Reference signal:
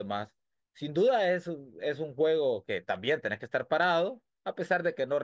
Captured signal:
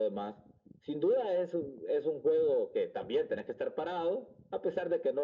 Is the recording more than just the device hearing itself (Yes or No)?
No